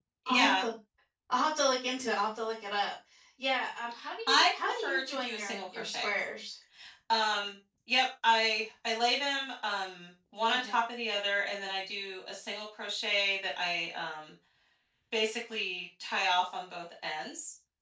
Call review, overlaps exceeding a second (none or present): present